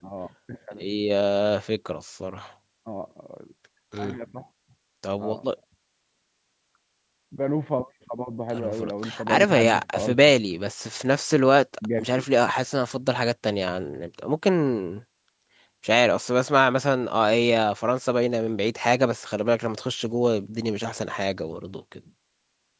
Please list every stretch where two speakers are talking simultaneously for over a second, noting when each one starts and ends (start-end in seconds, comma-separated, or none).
8.5-10.2